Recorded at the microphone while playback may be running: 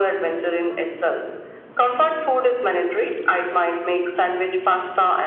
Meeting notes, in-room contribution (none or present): none